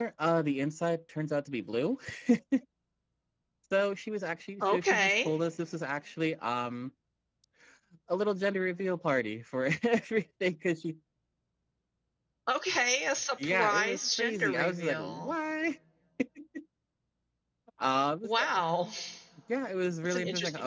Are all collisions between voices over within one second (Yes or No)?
No